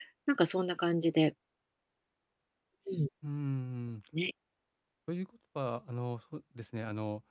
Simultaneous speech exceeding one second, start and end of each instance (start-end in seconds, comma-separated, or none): none